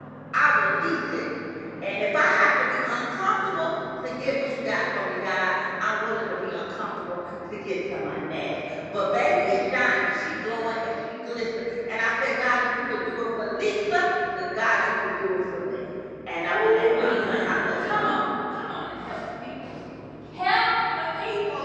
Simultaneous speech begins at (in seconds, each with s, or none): 16.5 s